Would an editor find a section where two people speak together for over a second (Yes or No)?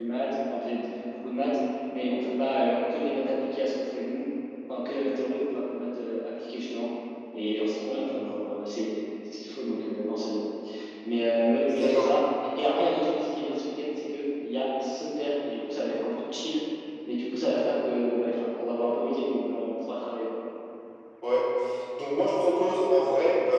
No